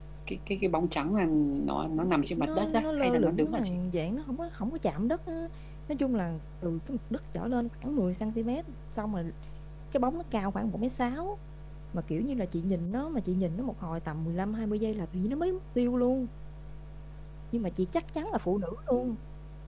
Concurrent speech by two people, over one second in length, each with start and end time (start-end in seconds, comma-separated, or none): 2.0-3.8